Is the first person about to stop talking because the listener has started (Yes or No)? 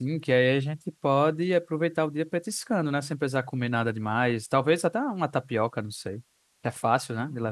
Yes